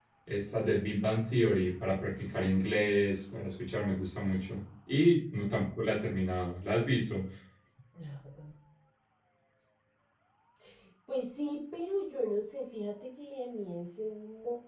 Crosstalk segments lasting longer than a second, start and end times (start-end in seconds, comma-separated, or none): none